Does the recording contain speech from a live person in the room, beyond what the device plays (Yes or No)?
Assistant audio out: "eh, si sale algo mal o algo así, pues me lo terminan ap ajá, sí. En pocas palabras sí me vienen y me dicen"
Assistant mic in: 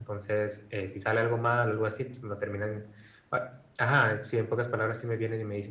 No